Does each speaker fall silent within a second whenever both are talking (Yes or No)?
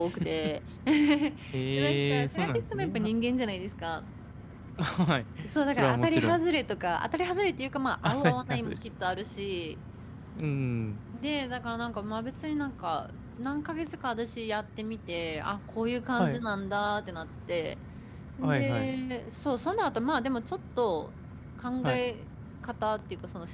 No